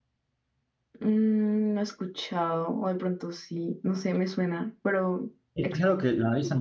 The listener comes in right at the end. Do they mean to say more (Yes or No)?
Yes